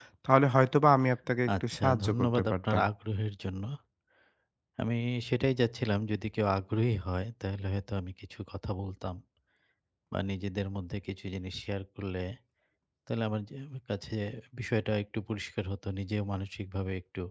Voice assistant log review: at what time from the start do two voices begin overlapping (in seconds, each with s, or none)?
1.5 s